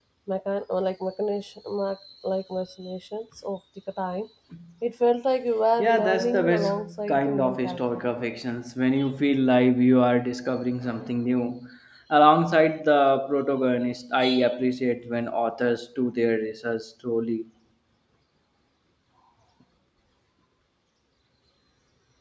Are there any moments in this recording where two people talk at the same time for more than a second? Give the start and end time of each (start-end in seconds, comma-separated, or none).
5.8-7.8